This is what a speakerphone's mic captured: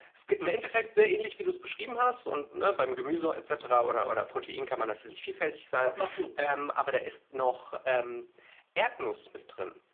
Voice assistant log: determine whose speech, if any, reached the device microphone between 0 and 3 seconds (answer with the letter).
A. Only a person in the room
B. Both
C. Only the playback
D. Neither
C